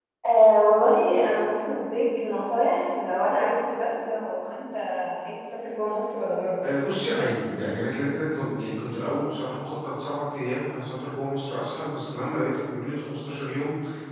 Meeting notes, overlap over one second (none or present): none